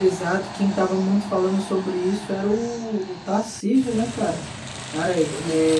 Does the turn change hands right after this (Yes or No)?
No